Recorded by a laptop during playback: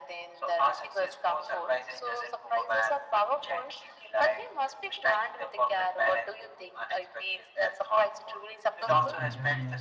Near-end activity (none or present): present